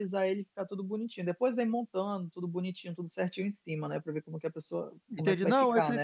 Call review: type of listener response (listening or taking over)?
taking over